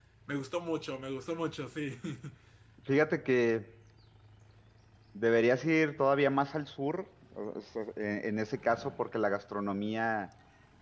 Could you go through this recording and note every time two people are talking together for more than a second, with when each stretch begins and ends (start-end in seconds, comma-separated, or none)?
none